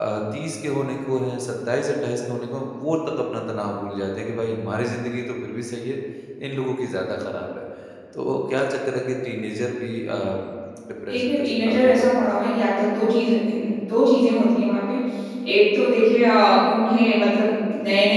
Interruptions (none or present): present